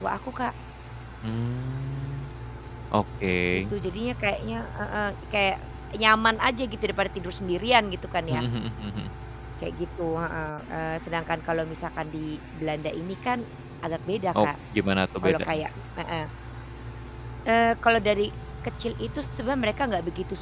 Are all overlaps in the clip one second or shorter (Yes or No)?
Yes